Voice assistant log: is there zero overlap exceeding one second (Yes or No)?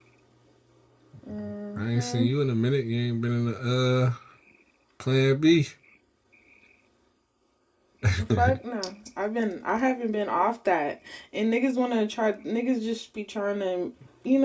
Yes